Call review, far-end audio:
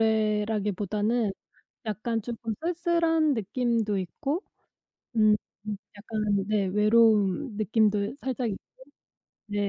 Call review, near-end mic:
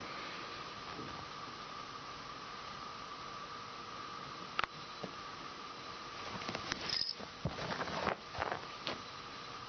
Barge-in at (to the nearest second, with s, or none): none